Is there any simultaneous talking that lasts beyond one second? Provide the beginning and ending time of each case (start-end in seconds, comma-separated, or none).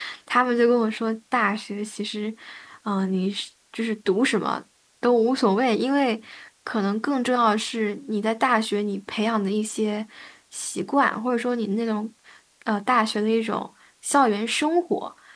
none